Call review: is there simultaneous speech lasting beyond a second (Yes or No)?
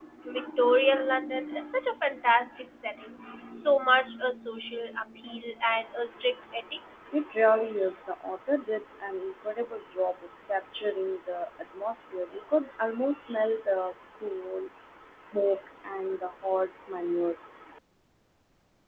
No